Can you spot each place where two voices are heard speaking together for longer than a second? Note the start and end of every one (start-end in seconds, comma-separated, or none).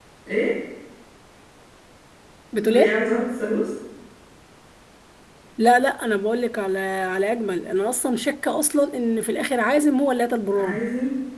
none